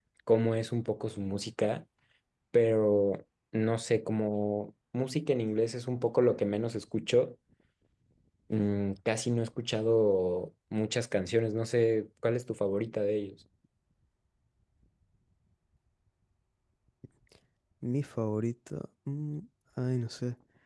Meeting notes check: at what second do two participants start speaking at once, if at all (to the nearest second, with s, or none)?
none